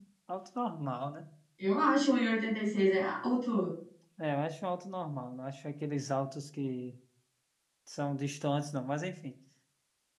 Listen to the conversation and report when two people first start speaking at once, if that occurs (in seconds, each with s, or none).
none